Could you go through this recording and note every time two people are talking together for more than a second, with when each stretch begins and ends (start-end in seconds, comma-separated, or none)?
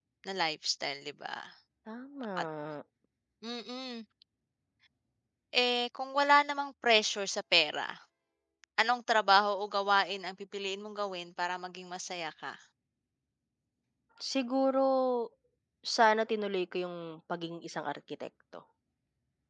none